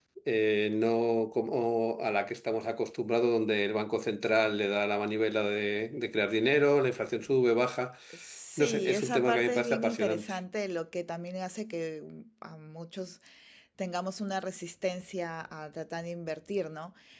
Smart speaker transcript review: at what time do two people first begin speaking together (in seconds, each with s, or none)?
8.6 s